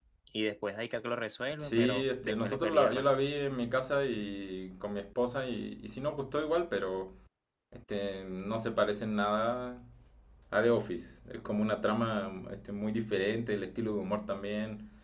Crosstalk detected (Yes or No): Yes